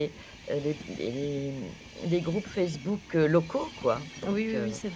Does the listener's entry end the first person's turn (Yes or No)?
Yes